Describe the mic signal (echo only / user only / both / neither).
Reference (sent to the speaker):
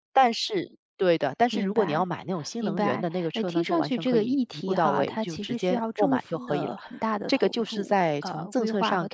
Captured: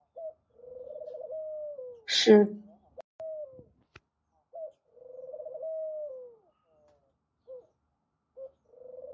user only